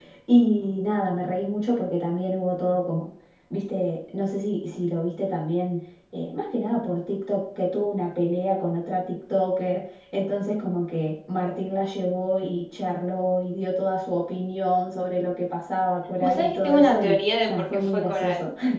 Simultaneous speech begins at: 16.2 s

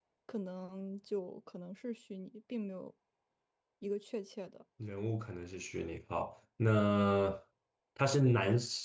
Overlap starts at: none

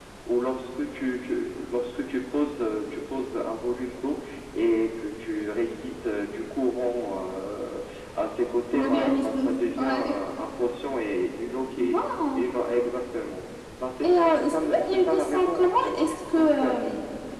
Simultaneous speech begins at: 8.7 s

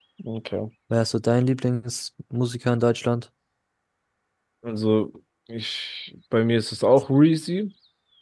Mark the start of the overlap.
none

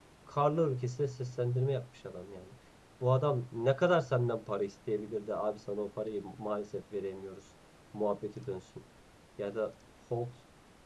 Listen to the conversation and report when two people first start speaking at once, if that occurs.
none

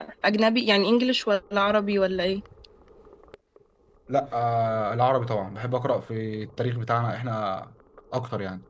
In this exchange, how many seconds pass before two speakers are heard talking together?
none

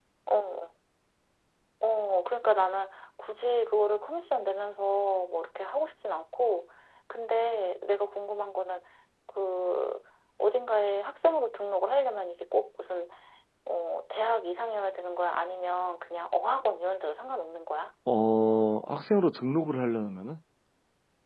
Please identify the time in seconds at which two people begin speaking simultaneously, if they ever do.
none

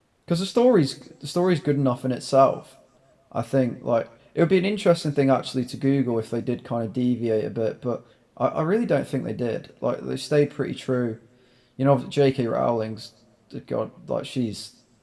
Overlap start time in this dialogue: none

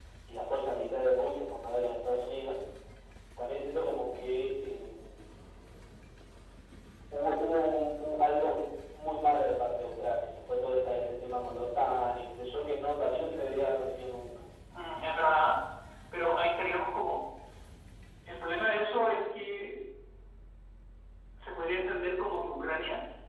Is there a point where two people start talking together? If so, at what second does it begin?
none

